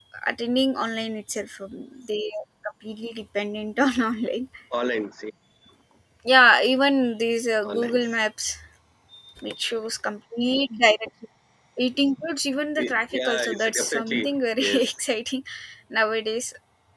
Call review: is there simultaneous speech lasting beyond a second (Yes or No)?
Yes